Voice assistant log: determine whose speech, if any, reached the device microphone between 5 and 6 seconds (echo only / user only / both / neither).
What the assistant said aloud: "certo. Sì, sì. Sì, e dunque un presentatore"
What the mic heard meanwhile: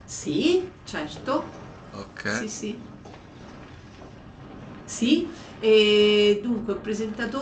echo only